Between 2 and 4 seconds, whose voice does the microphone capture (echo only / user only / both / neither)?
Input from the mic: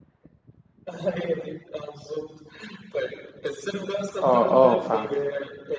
echo only